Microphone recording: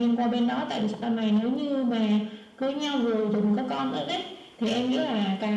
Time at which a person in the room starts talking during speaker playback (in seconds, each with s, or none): none